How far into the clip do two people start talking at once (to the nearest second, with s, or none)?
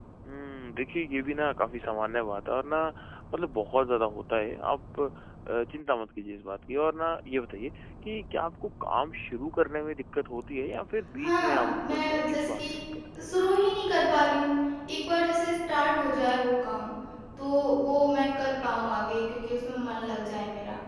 11 s